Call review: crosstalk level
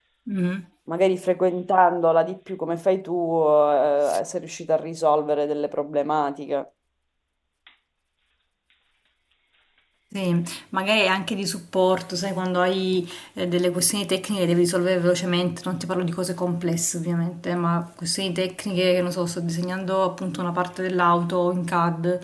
none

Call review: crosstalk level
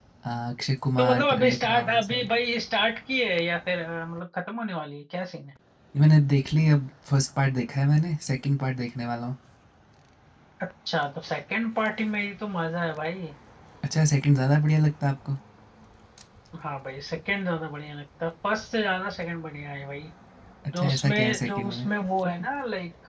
present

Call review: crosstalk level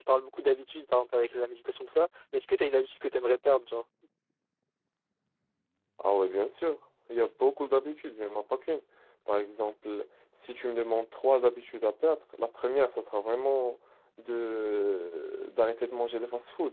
none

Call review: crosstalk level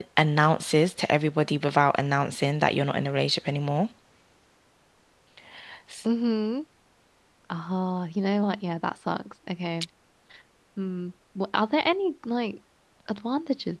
none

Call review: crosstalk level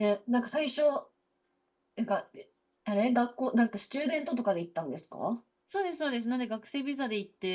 none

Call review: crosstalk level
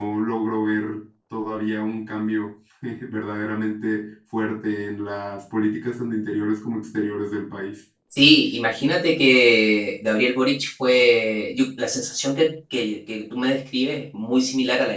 none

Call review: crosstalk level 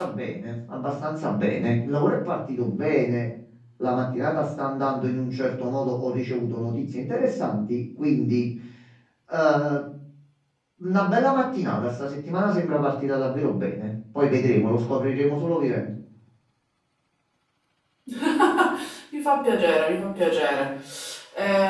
none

